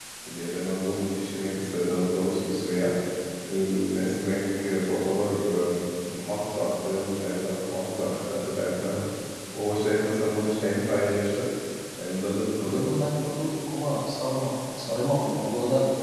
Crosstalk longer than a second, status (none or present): none